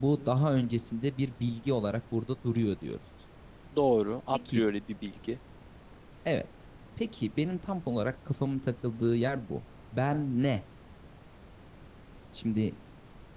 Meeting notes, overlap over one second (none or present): none